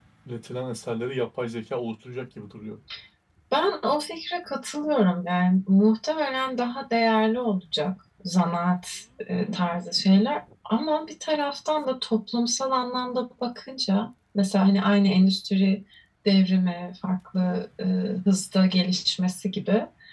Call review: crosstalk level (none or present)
none